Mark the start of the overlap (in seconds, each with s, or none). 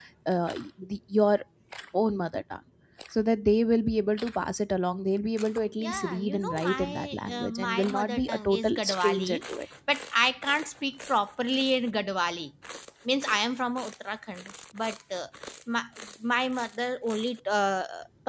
5.8 s